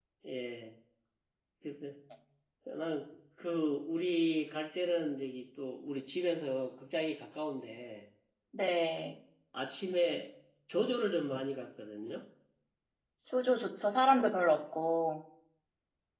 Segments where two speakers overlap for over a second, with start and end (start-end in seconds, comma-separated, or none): none